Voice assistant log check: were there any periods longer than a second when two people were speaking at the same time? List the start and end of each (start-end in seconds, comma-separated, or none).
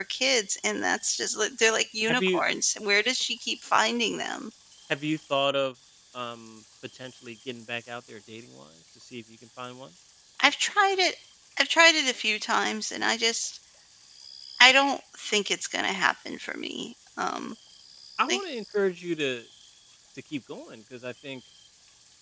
none